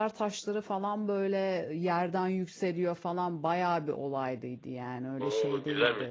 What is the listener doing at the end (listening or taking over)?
taking over